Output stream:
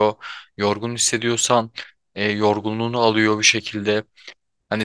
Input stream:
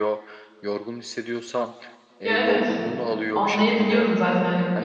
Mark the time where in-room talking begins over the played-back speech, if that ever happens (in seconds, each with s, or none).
2.2 s